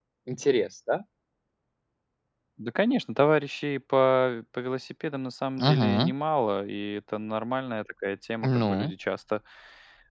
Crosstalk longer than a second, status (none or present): none